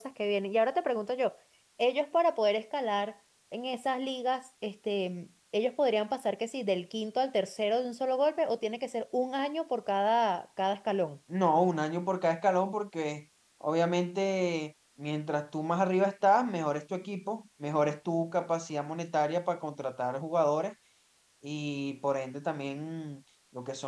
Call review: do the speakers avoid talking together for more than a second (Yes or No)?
Yes